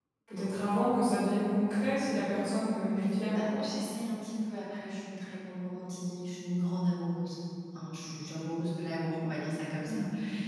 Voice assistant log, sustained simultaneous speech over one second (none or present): none